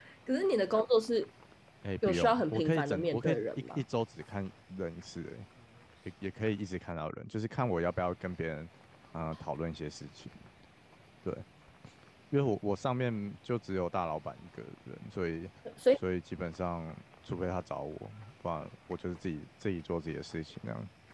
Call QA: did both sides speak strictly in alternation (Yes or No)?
No